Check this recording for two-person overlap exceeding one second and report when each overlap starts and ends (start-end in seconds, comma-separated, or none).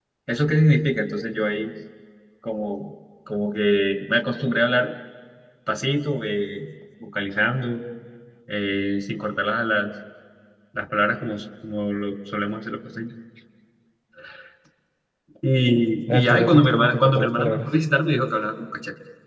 16.1-17.7